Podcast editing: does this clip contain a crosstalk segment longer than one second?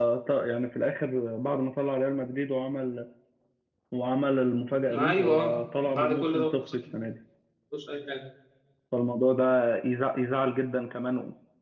Yes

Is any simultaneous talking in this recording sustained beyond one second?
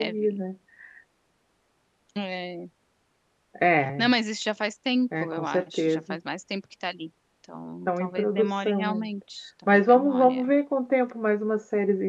Yes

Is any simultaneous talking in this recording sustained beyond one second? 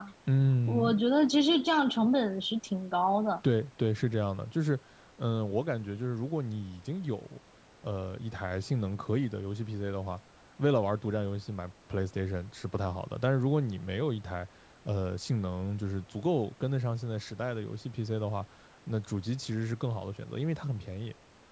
No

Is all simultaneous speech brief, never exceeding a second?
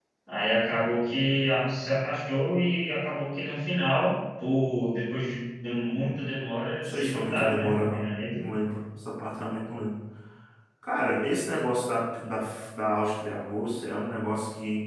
No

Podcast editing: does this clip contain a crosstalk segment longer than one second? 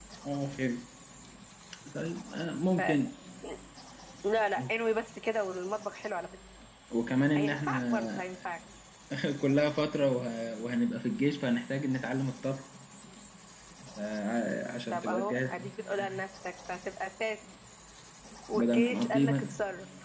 Yes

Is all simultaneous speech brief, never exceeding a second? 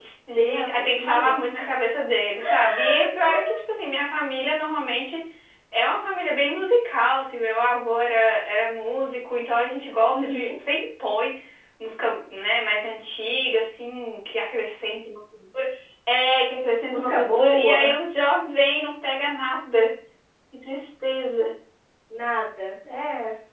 No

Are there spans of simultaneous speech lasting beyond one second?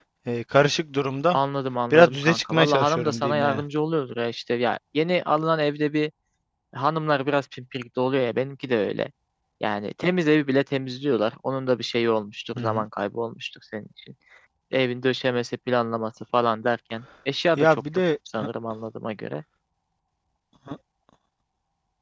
Yes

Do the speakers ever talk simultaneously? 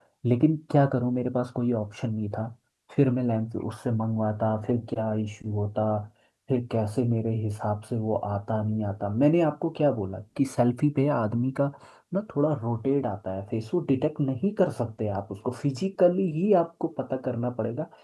No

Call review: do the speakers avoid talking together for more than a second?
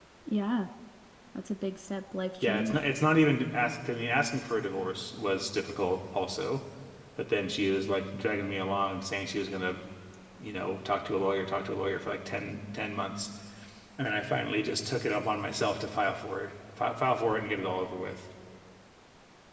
Yes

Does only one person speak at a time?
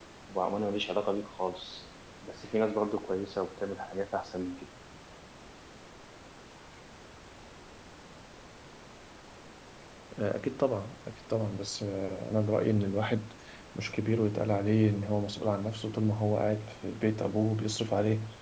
Yes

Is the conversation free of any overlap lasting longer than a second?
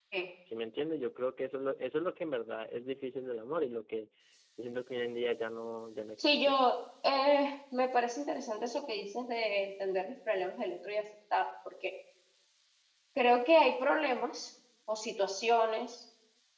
Yes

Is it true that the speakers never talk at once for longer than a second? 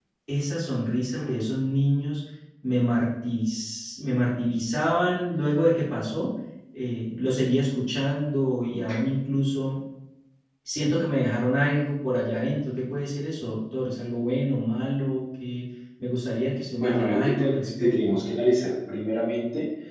No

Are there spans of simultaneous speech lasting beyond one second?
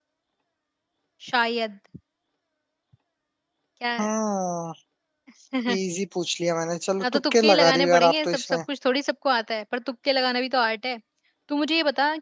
Yes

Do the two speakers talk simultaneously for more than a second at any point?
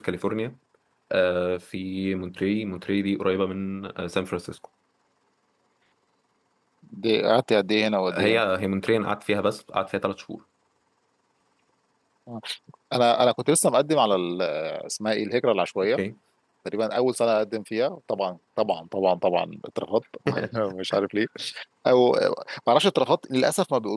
No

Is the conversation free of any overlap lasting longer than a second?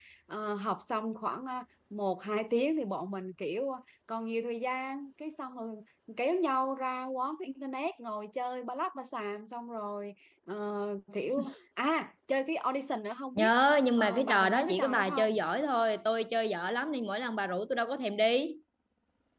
No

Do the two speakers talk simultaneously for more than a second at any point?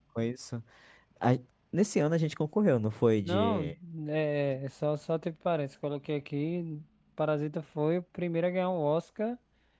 No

